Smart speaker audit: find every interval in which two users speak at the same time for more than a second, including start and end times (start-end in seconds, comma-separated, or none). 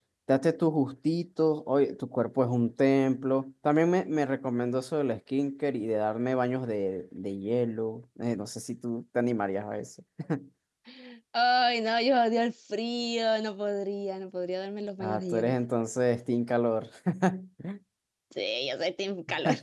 none